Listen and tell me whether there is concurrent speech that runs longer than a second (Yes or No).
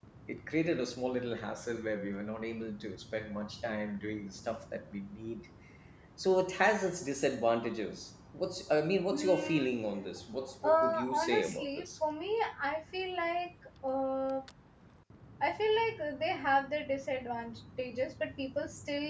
Yes